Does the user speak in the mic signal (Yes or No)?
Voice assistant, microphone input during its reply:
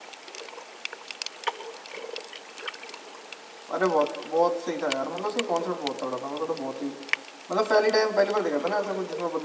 Yes